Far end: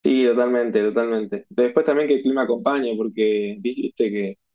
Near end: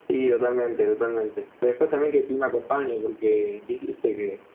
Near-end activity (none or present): none